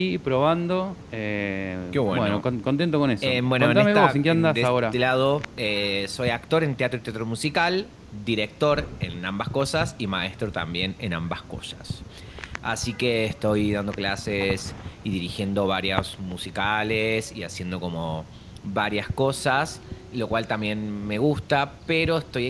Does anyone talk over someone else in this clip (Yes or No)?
Yes